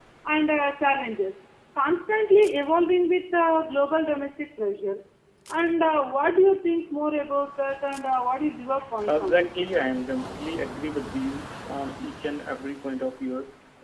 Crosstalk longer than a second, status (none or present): none